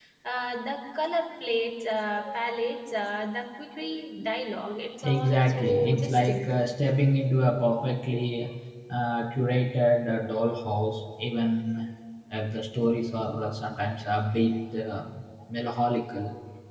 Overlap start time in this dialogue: 5.0 s

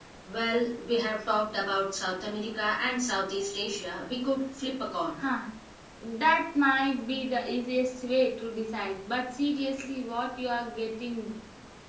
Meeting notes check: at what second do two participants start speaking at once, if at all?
none

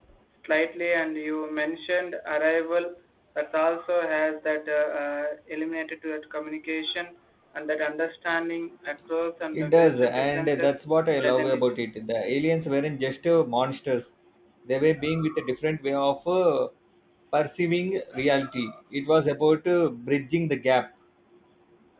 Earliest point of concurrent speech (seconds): 9.5 s

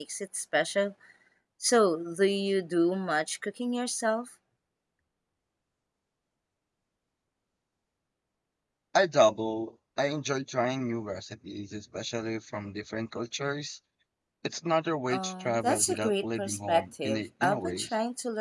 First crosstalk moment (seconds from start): 15.1 s

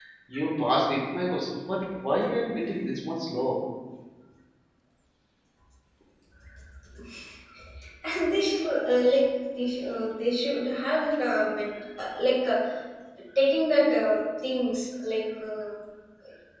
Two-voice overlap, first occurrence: none

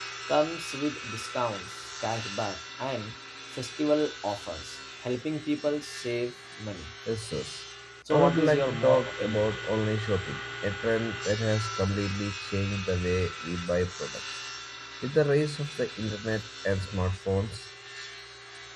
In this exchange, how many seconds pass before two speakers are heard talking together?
8.1 s

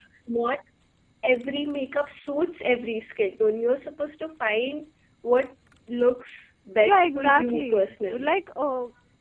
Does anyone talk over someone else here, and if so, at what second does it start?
6.8 s

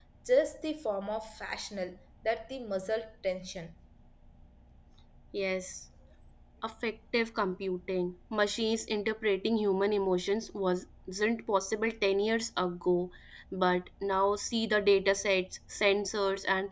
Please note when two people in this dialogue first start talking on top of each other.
none

